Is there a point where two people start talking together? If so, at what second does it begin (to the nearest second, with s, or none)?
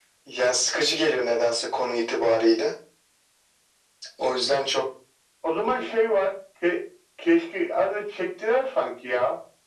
none